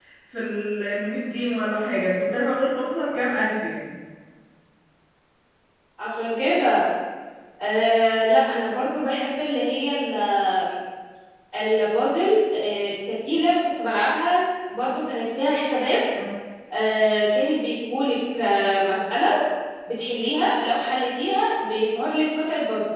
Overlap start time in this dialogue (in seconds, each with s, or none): none